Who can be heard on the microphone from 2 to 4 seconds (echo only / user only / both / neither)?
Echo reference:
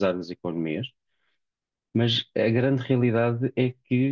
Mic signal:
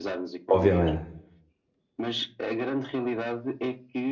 echo only